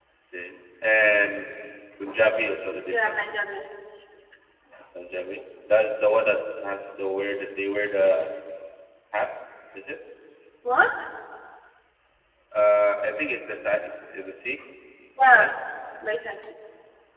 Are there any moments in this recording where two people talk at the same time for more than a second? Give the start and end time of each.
none

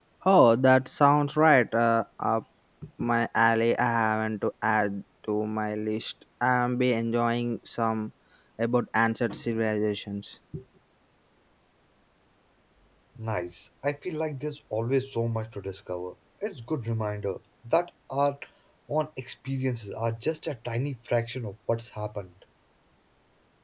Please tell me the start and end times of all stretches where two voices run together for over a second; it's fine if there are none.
none

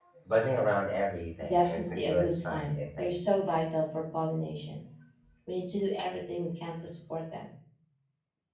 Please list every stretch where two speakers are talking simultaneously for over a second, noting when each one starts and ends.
1.4-3.1

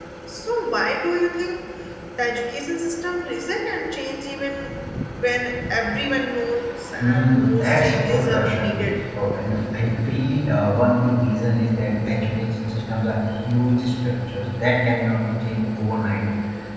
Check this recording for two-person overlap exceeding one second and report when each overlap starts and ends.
7.0-8.8

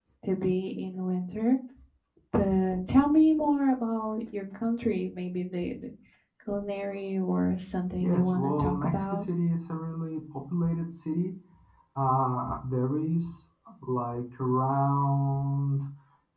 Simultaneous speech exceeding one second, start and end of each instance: 8.0-9.2

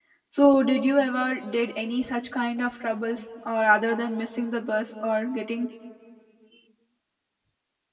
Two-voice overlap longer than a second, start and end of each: none

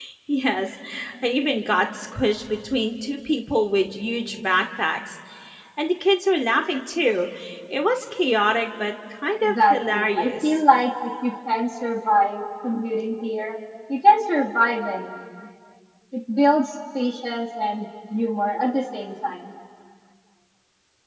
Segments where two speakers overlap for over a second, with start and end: 9.4-10.6

